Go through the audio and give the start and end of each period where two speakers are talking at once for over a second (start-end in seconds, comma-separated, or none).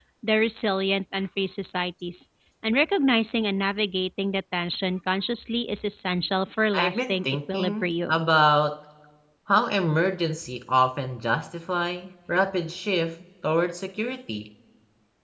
6.8-8.2